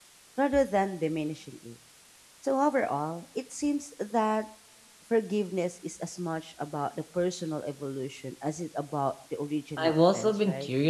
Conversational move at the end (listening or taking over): taking over